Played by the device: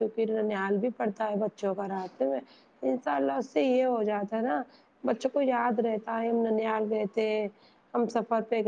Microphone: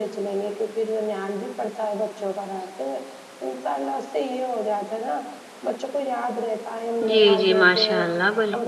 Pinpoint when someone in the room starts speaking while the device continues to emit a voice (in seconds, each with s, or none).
7.1 s